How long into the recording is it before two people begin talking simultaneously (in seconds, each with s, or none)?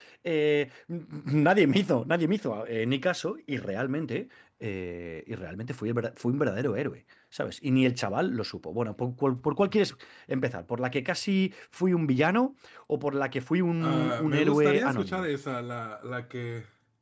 13.8 s